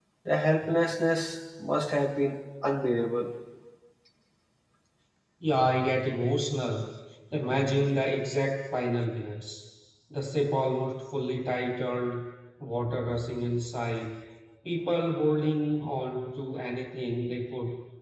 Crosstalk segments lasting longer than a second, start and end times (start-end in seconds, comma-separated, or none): none